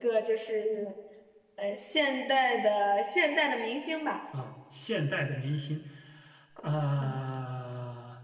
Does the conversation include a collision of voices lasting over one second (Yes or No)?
No